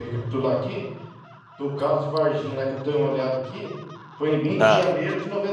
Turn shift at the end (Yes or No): No